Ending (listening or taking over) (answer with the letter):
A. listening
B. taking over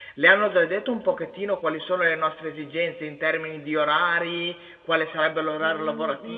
B